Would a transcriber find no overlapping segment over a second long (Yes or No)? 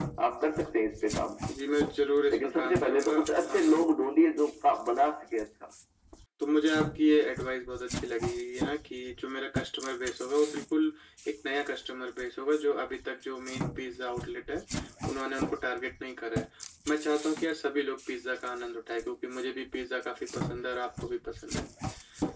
No